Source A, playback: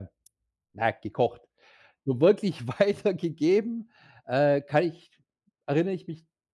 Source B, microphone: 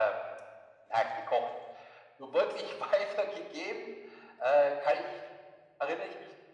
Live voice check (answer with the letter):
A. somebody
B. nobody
B